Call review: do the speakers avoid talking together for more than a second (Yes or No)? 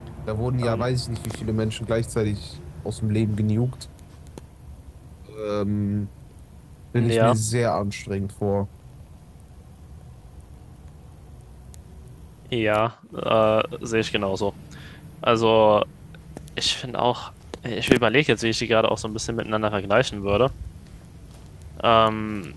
Yes